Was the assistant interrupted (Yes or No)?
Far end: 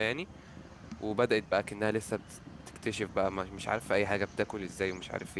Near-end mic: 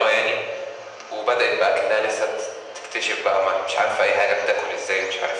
No